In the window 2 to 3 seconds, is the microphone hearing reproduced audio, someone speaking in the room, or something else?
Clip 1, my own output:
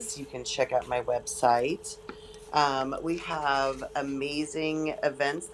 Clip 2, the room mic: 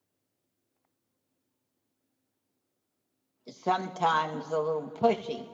neither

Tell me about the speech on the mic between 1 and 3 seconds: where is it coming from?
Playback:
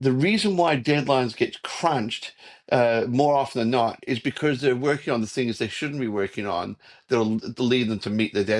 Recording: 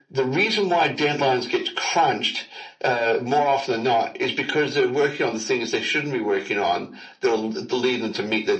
echo only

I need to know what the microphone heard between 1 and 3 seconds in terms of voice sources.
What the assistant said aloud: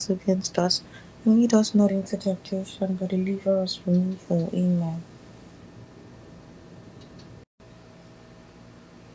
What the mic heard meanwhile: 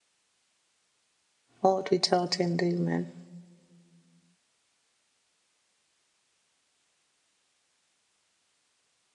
user only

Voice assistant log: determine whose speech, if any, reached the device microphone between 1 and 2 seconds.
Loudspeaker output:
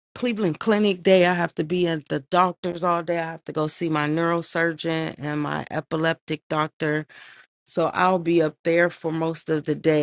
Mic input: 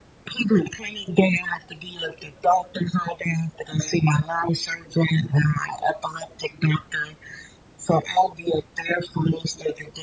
echo only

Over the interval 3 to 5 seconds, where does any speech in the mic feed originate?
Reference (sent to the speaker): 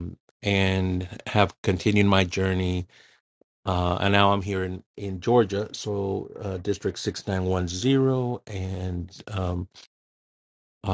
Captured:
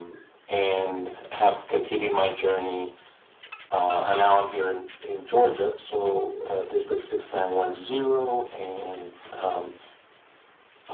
echo only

